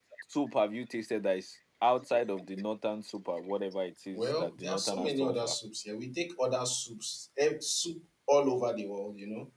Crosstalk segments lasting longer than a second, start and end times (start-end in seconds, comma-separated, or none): 4.1-5.5